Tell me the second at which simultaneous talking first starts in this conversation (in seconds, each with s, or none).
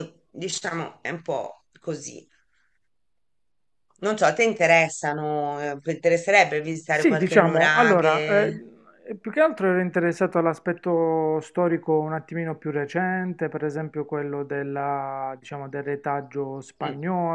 7.0 s